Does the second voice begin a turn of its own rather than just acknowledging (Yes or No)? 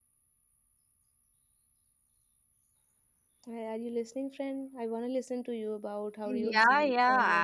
Yes